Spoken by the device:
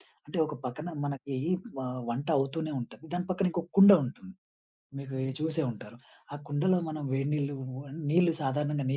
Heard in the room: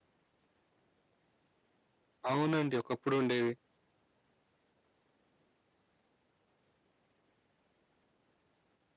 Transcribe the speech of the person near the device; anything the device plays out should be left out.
అవునండి. ఒకప్పుడుండేవి.

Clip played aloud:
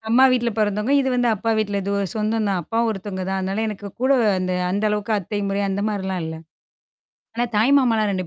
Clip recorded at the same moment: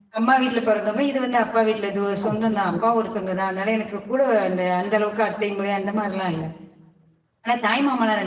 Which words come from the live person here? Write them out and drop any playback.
அச்சச்சோ!

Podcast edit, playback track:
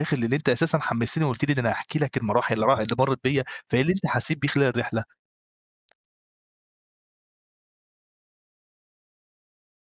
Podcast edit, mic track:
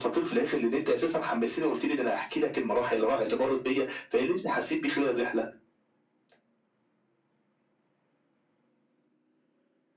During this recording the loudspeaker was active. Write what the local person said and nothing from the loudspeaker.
none

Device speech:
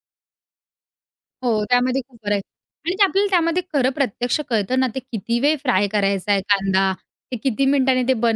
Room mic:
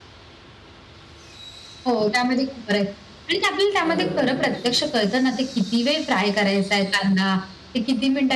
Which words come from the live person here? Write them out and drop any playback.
बरोबर.

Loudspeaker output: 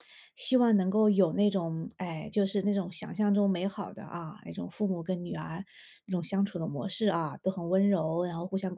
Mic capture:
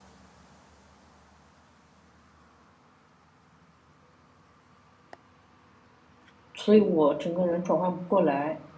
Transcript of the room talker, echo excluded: 所以我整个人转换不过来，

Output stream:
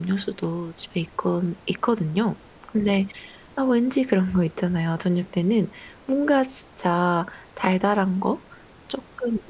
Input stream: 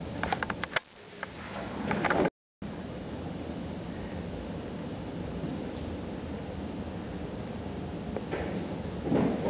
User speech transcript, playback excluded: none

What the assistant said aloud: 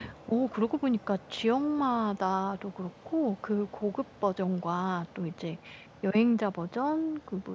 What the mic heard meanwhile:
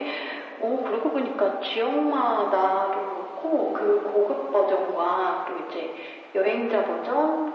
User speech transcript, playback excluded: none

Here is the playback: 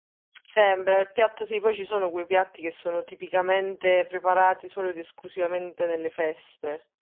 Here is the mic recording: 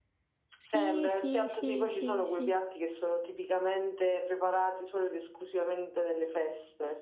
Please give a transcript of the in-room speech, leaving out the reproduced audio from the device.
Sì, sì, sì, sì, sì.

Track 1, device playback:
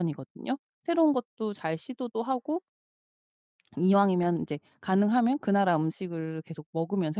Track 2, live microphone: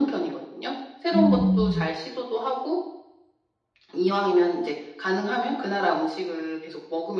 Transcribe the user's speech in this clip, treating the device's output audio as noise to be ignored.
음.

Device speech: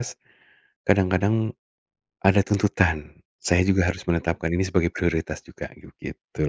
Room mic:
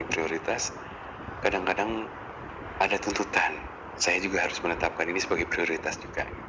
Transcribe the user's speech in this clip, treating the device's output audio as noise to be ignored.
none

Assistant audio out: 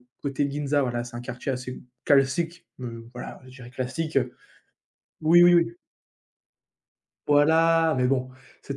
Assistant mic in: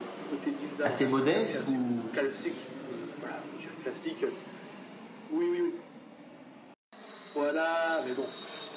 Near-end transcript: Assez modeste ou?

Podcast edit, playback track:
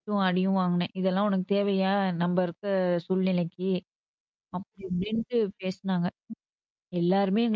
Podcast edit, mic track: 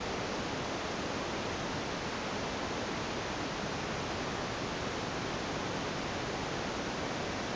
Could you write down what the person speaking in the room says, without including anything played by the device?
none

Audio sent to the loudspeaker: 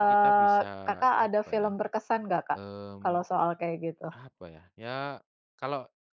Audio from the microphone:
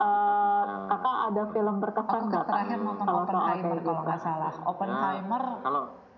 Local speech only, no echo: aku ke terakhir nonton Oppenheimer kalau enggak salah. Oppenheimer

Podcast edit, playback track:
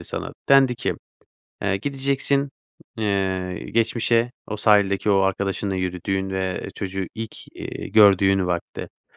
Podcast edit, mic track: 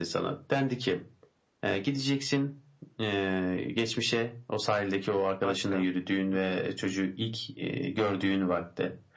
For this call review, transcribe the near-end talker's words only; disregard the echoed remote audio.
Başka? Hı hı.

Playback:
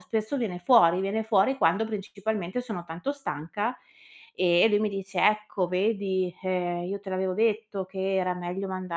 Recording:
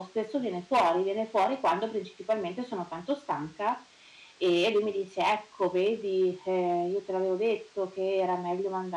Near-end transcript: none

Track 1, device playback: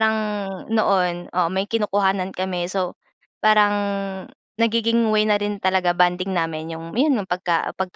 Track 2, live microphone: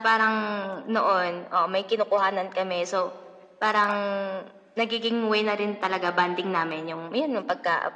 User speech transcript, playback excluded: none

